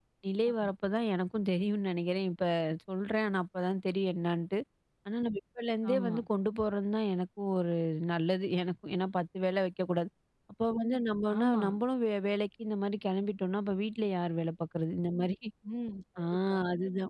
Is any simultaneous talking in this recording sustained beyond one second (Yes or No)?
No